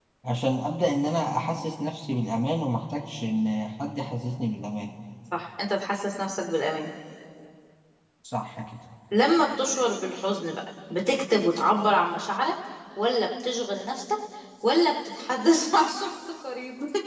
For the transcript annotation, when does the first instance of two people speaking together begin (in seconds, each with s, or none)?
none